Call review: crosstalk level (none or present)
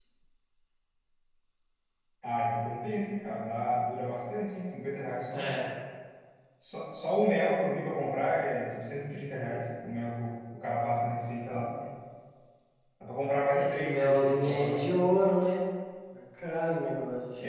present